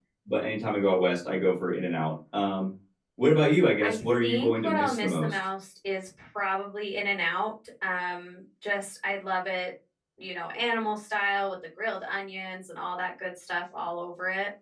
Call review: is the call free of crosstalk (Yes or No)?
No